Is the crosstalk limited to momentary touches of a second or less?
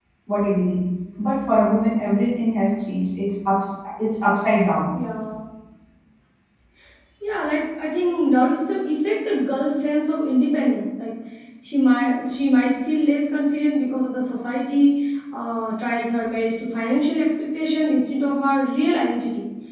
Yes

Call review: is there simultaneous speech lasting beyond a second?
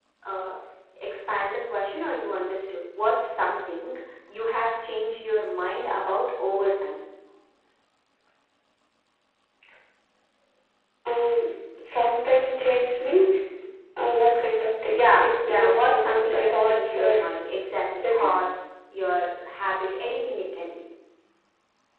Yes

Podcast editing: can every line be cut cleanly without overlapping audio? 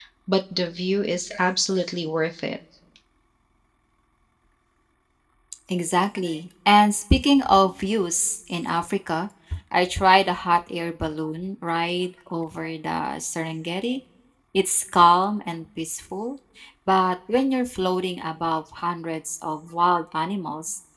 Yes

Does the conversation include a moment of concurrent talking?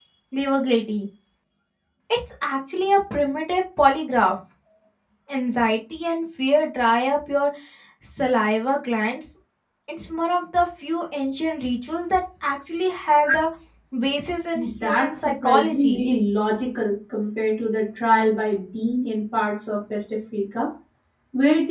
Yes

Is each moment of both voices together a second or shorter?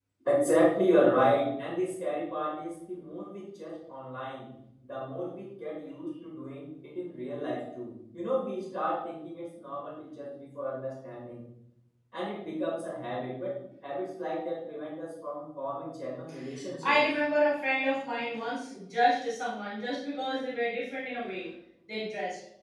Yes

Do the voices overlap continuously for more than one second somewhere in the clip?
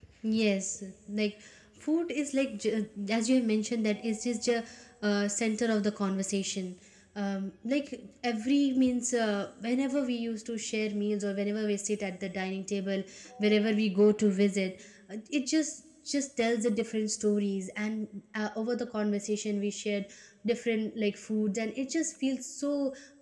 No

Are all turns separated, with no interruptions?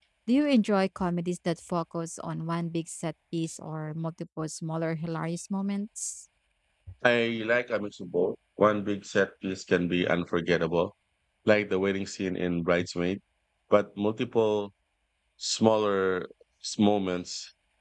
Yes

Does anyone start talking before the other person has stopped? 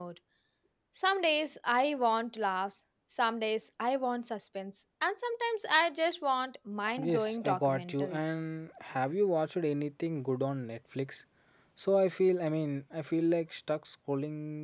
Yes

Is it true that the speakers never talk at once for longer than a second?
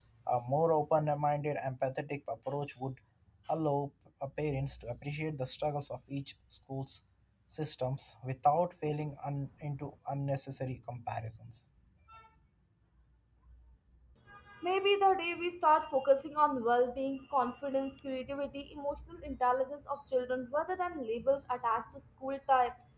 Yes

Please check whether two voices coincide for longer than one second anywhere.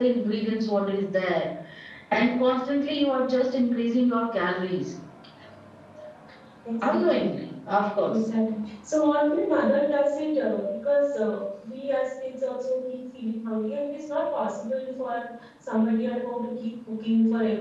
No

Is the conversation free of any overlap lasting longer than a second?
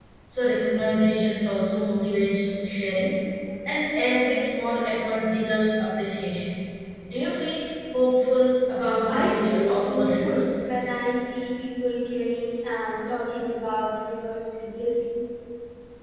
No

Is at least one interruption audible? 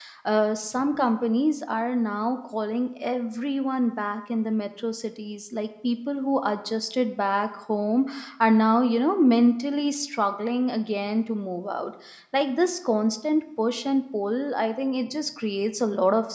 No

